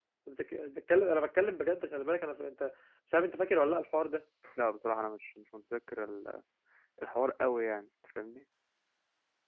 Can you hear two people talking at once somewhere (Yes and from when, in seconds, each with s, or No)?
No